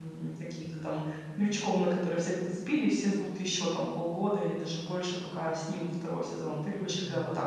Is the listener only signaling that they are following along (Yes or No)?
No